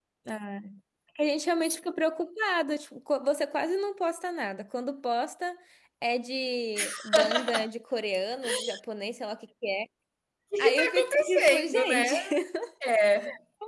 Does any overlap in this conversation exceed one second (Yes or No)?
Yes